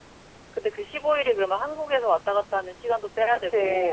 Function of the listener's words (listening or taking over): taking over